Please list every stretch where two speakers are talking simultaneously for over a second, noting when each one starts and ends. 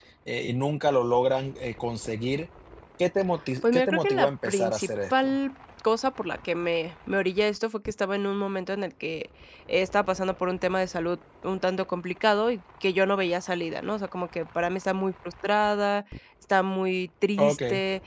3.6-5.4

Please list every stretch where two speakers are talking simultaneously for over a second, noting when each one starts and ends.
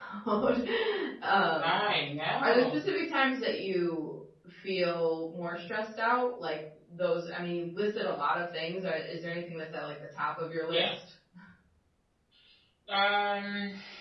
none

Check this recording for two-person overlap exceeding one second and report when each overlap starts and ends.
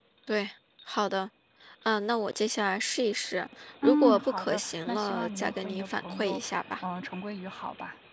3.8-6.4

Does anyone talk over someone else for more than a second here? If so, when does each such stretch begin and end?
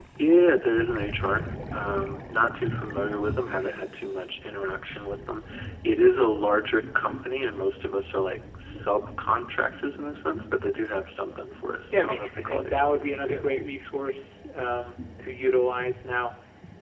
11.9-13.4

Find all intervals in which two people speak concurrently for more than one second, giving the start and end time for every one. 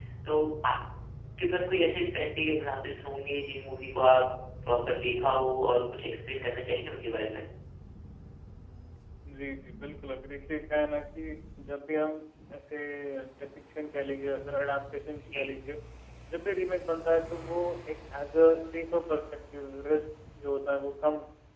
none

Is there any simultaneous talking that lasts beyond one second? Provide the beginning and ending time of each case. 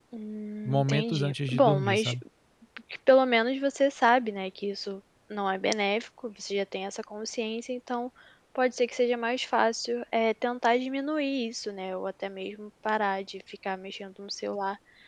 0.7-2.1

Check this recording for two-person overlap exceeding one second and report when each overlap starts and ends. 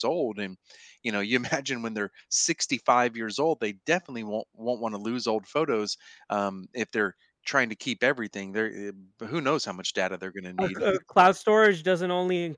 none

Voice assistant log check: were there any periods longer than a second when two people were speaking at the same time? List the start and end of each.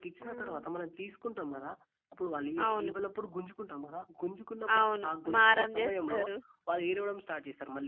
4.8-6.2

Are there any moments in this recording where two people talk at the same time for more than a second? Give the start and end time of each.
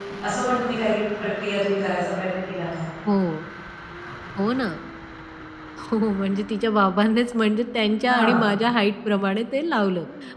none

